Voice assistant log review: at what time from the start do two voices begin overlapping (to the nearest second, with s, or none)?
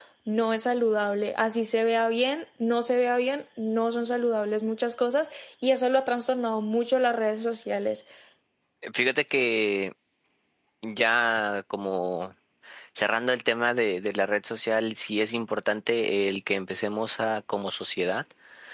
none